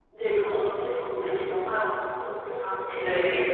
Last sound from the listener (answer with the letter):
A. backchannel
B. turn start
A